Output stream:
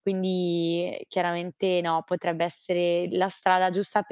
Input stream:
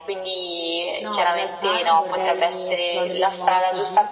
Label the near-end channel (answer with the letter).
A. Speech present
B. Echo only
A